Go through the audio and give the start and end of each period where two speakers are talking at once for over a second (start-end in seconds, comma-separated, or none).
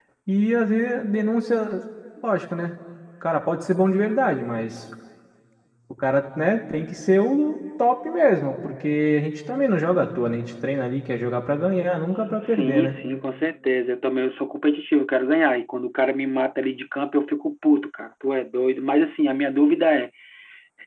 none